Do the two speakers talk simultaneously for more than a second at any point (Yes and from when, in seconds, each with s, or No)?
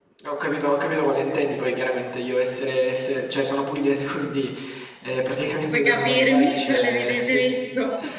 Yes, from 5.7 s